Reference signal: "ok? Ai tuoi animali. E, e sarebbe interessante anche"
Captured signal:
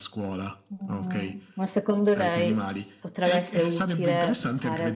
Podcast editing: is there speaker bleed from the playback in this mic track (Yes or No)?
Yes